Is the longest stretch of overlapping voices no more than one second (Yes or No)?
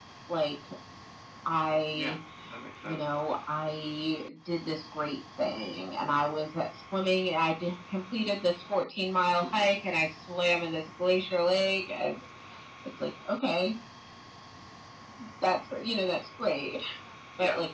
Yes